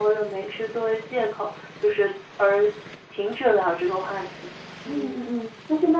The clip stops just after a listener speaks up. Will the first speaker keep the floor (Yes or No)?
No